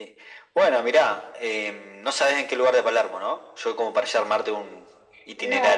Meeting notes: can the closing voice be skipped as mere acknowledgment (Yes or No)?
No